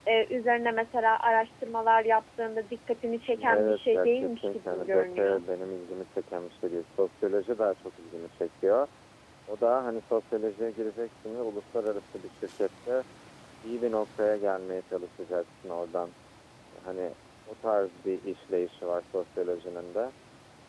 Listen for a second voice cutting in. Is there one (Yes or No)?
Yes